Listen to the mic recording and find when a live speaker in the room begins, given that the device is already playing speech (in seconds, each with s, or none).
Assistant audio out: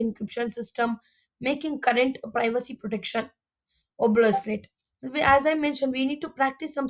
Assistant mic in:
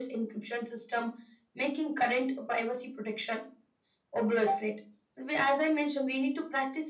none